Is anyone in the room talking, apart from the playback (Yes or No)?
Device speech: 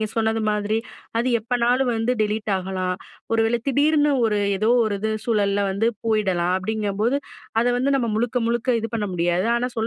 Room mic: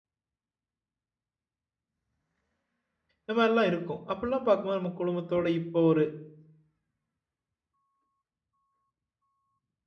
Yes